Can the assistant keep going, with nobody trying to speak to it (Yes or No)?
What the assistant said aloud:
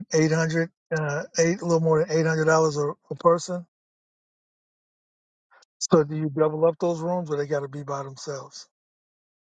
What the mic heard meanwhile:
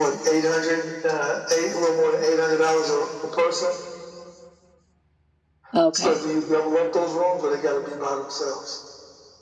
No